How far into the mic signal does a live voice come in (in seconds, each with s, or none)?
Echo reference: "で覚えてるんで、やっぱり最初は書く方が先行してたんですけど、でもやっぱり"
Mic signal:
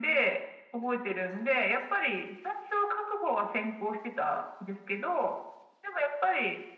none